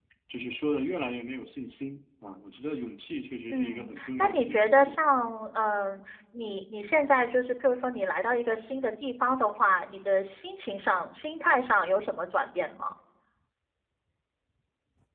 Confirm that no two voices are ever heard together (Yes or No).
No